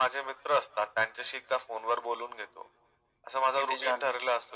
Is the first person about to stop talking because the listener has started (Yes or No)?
No